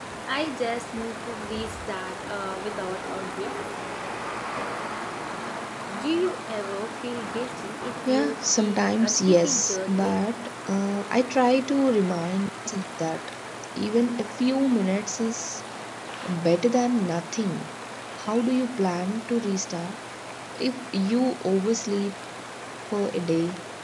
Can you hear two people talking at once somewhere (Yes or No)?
Yes